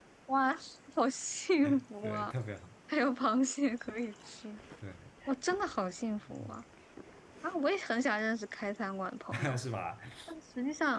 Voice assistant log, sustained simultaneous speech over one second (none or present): none